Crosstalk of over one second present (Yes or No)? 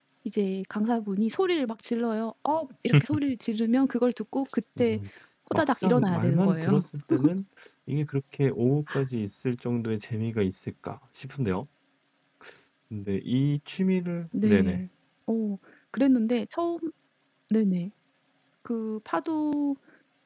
Yes